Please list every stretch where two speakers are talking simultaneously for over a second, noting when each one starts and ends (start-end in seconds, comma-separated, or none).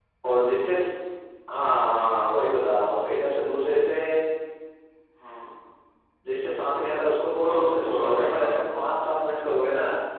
7.3-8.6